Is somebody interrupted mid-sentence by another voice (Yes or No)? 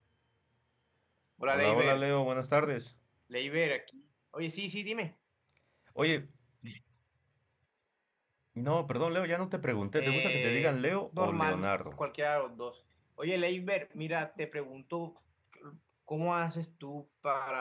Yes